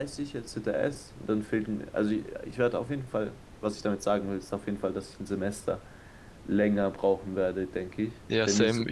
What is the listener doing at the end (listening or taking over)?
taking over